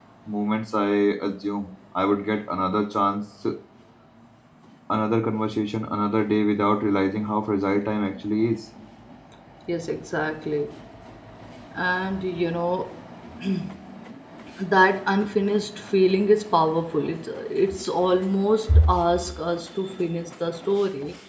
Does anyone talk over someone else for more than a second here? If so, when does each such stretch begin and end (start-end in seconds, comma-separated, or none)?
none